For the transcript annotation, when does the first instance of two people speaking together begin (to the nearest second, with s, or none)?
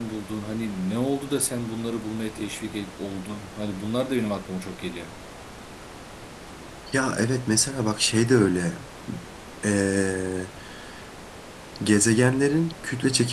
none